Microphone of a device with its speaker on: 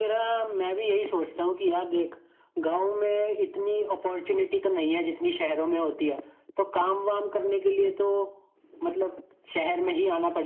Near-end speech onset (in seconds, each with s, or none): none